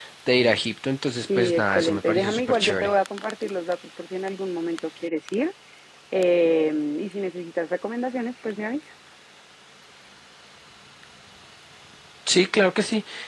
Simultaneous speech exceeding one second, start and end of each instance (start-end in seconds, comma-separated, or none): 1.4-2.9